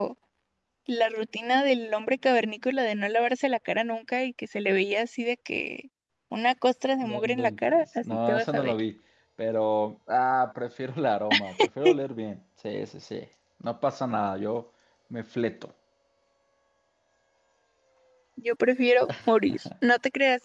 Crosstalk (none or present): present